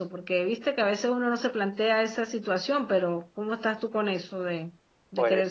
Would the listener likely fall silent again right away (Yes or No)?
No